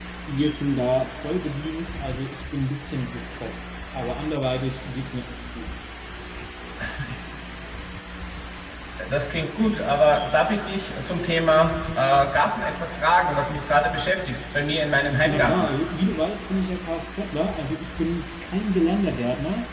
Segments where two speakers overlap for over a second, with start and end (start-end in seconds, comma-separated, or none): none